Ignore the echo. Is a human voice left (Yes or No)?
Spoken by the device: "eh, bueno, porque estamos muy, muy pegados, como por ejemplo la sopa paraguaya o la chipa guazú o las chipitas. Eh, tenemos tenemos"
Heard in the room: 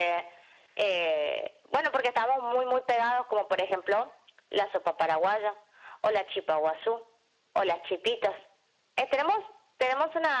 No